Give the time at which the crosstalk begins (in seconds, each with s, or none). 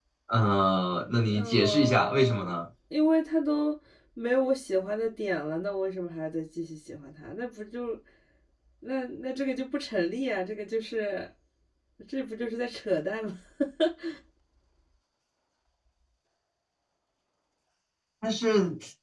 1.2 s